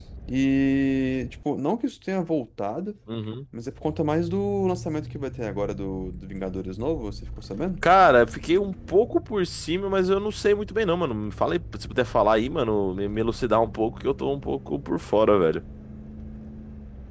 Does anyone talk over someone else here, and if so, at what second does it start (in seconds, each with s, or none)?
none